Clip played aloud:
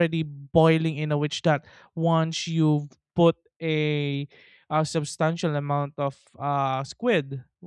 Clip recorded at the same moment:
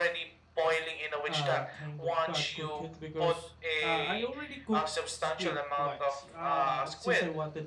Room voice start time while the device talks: 1.3 s

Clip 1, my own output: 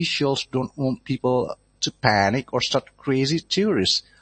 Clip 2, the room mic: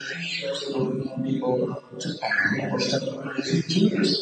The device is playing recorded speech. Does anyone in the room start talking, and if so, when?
none

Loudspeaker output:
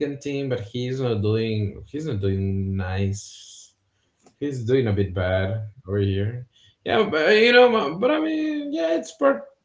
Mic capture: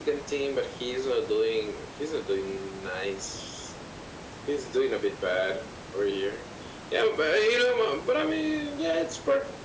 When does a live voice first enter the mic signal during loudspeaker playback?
none

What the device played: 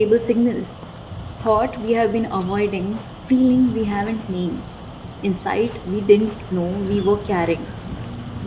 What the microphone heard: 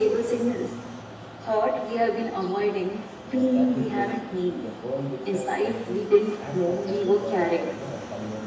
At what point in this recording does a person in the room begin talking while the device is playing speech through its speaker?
3.2 s

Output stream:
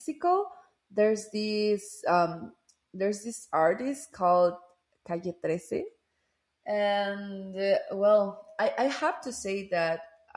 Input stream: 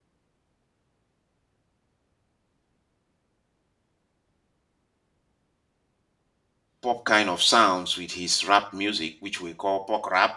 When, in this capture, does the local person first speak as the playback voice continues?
6.8 s

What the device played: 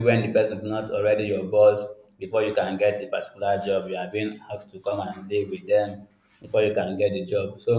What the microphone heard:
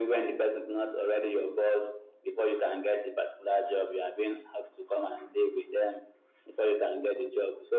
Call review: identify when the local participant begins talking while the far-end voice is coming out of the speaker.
none

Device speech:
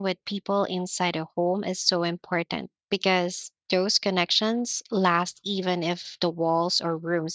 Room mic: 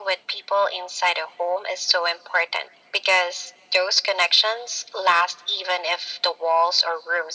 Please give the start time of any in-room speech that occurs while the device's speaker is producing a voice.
none

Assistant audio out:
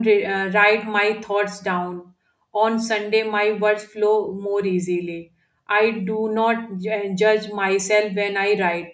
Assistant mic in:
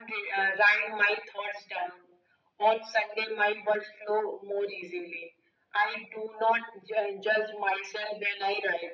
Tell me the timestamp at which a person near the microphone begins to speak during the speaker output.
none

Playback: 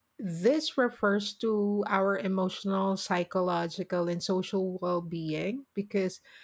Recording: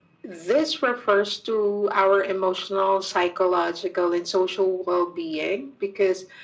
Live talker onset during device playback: none

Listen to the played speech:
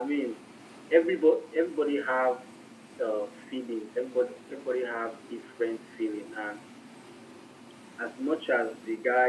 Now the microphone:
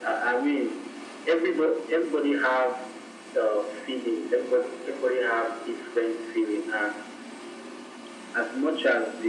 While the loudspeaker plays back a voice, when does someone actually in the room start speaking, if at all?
none

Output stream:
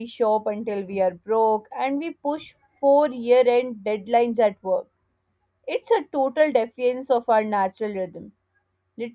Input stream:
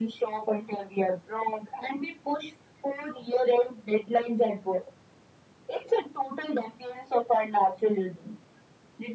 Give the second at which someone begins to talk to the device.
none

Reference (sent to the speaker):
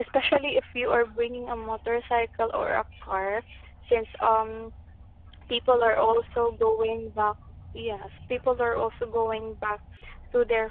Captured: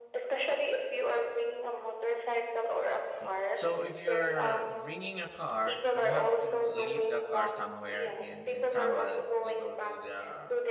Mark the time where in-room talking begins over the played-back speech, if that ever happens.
3.1 s

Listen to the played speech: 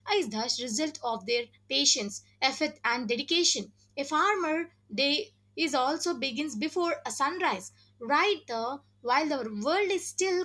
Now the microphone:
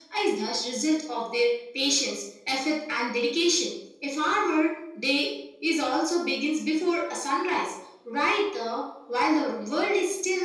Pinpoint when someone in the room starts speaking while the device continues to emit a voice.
none

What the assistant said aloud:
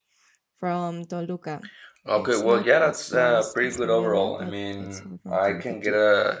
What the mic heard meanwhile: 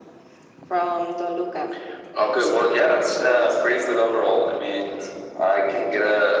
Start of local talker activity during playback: none

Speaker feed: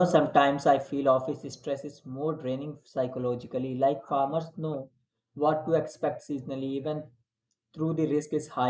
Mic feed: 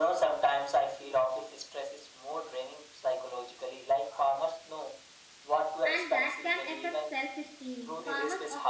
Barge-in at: 5.8 s

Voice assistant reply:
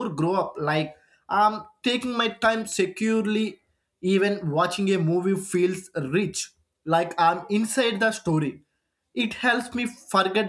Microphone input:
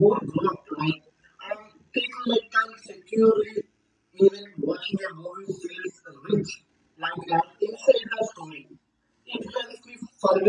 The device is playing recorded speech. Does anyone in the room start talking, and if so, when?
none

